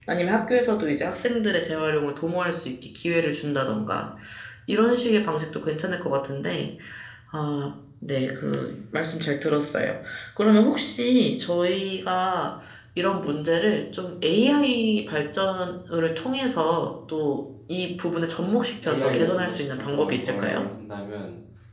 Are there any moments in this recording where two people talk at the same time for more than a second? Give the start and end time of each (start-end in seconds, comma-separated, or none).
18.8-20.6